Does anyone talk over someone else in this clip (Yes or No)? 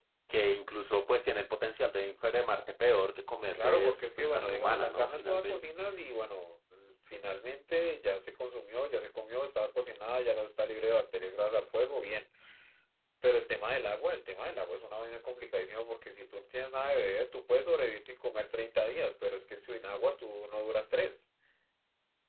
Yes